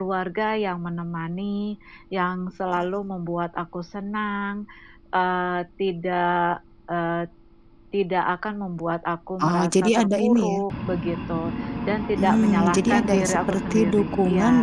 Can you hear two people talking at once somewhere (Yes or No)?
Yes